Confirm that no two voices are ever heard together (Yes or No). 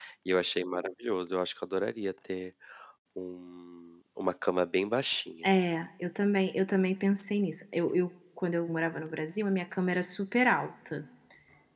Yes